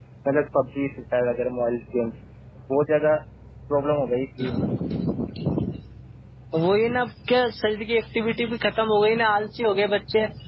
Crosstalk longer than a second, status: none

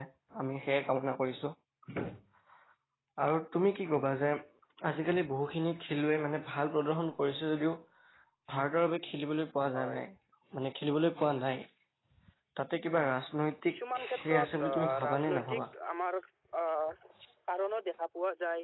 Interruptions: present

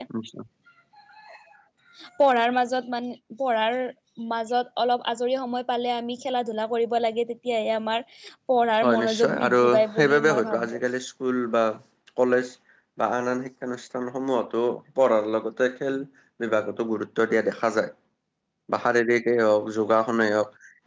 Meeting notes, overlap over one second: present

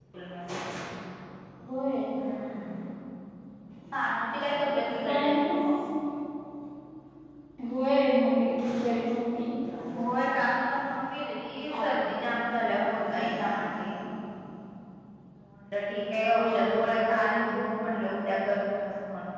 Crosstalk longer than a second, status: present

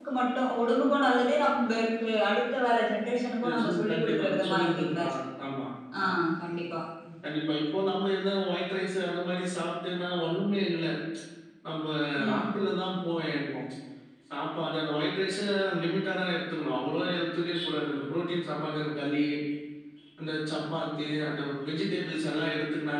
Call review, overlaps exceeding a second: present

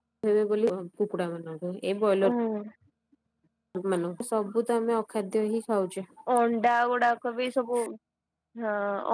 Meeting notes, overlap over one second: none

